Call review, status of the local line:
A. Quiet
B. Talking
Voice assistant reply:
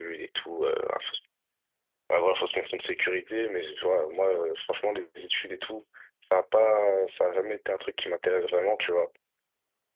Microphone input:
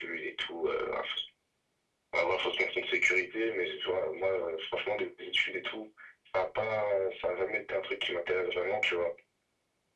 A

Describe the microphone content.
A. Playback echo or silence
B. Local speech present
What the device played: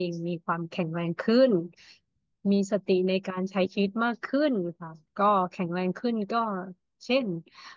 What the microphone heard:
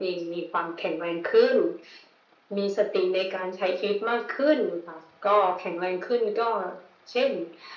A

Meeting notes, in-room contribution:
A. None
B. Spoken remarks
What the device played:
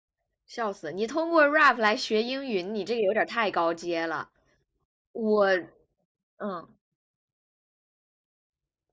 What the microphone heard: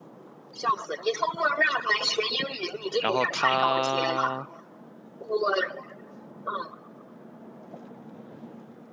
B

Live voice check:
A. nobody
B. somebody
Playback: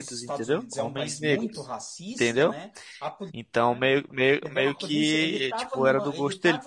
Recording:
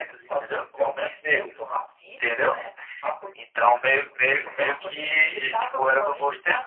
A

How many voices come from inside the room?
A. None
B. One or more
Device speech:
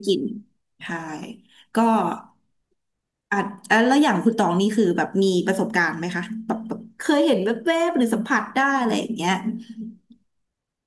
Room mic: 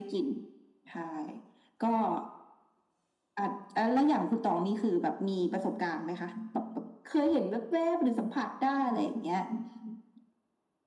A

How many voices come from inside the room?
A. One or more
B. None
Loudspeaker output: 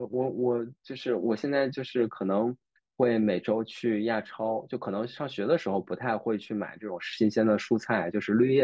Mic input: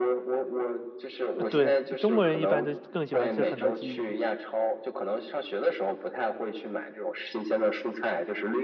A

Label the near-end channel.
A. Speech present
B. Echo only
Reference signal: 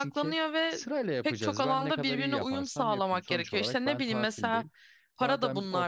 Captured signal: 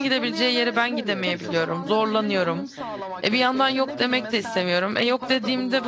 A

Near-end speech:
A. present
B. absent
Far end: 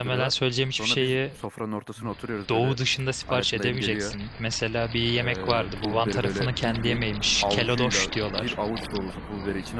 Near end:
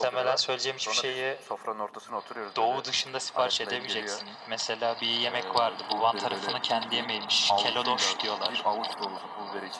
B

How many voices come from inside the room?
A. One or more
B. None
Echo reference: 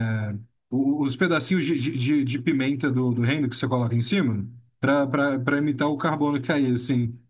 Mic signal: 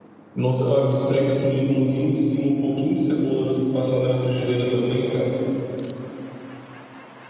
A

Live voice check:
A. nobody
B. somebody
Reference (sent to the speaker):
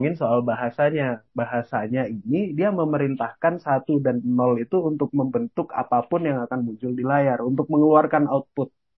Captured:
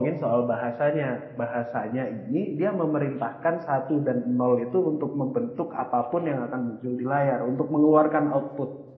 A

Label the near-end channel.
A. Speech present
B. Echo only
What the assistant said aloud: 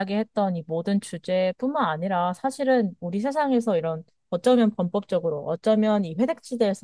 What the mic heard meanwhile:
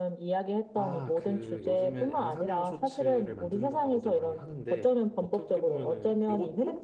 A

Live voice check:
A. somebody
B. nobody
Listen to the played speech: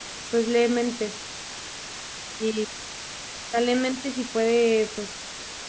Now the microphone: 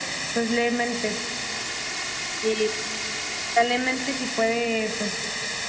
B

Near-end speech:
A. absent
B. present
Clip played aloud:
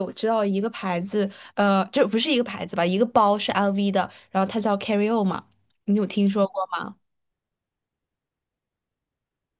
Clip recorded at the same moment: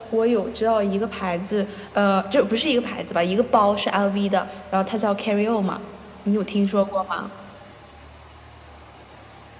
A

